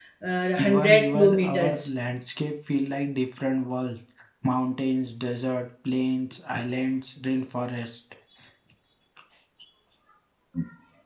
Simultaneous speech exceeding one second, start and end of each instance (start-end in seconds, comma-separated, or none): 0.6-1.9